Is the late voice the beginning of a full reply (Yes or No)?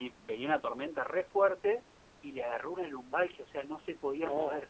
No